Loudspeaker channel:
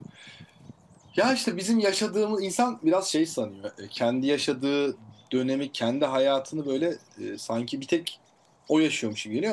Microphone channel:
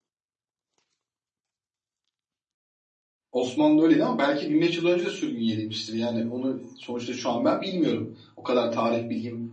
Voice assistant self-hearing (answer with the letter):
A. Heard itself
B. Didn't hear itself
B